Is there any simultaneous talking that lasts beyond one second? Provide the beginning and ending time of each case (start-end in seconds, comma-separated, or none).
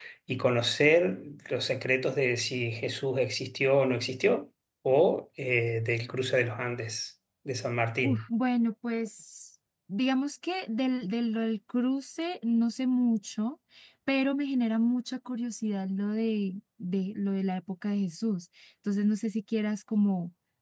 none